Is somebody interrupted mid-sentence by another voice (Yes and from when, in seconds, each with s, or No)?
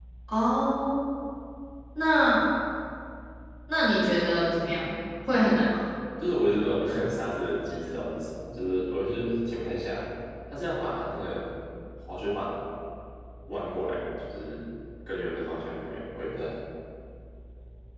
No